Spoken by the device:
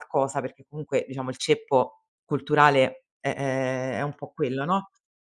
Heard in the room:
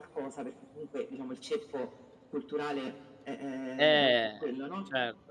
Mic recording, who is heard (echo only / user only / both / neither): both